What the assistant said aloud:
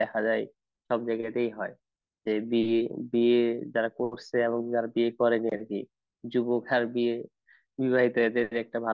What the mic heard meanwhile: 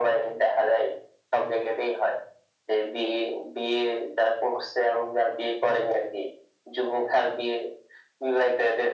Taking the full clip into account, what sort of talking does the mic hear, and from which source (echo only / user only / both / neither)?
echo only